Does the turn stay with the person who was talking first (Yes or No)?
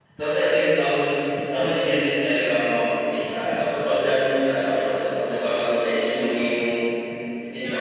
No